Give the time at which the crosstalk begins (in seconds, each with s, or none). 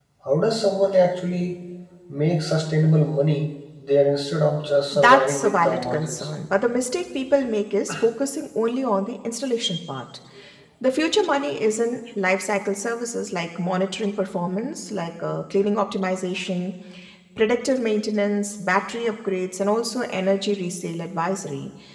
4.9 s